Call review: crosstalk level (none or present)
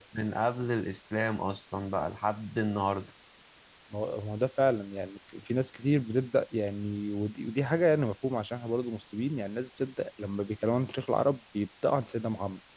none